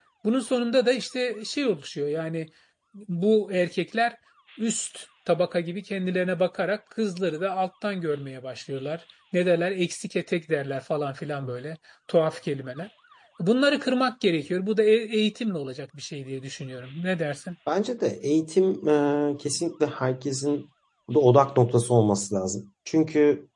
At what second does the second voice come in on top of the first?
none

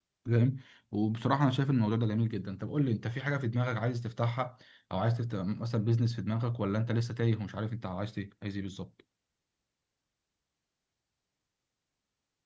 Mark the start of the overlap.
none

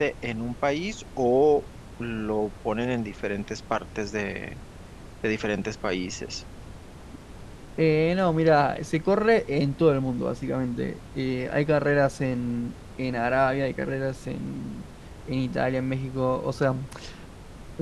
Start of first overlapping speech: none

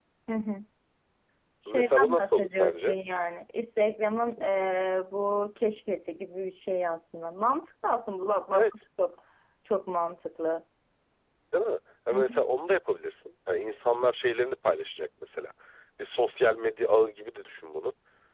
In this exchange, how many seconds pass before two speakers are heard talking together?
1.7 s

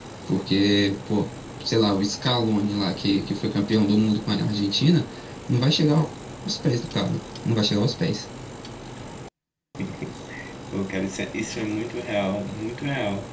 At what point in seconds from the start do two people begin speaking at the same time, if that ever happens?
none

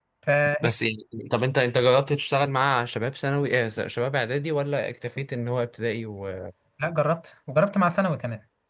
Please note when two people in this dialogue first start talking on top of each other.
none

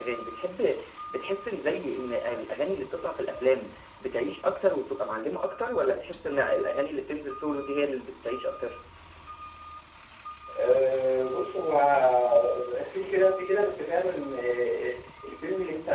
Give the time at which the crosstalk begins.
none

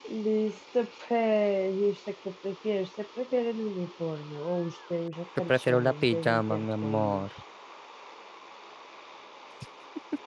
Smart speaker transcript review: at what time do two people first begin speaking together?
5.5 s

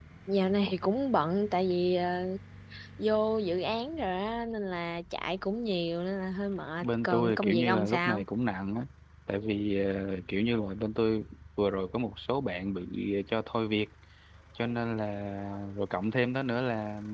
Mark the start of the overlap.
6.8 s

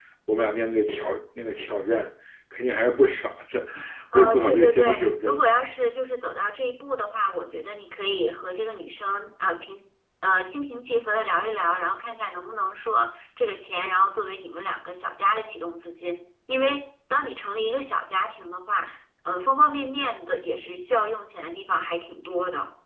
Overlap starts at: 4.1 s

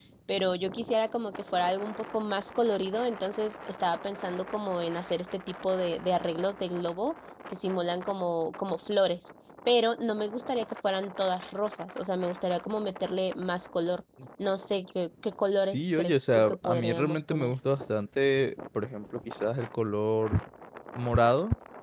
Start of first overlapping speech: 15.6 s

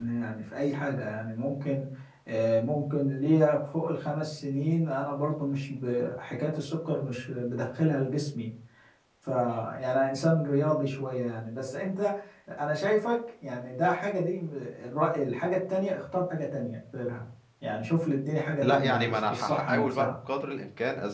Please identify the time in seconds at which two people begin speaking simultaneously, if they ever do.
18.6 s

